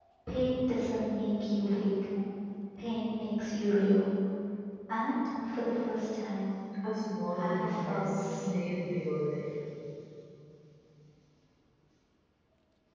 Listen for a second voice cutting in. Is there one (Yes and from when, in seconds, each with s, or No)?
Yes, from 7.4 s